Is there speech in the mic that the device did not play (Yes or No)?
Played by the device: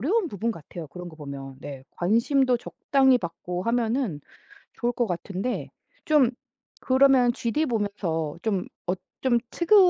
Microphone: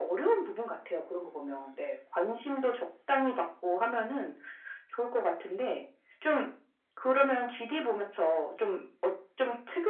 No